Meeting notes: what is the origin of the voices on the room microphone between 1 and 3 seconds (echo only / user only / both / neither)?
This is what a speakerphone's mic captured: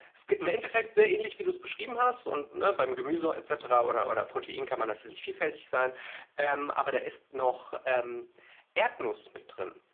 echo only